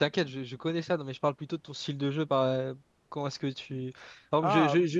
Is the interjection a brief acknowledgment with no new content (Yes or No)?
Yes